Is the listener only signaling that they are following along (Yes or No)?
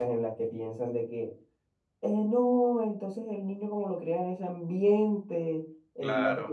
Yes